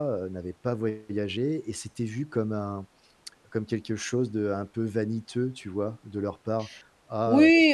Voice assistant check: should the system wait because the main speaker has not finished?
No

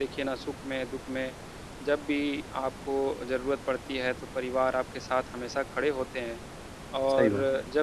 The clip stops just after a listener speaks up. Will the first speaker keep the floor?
Yes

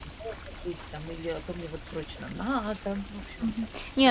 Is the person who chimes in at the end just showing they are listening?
No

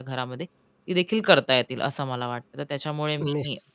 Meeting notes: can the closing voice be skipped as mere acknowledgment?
Yes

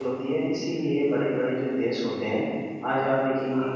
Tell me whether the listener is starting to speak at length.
No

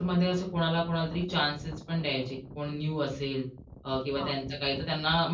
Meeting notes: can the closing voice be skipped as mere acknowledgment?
Yes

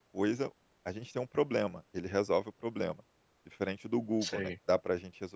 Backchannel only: Yes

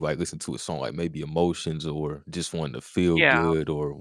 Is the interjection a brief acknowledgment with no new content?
Yes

